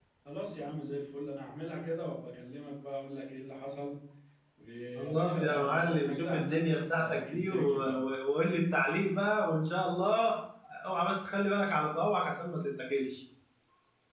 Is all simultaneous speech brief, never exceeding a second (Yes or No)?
No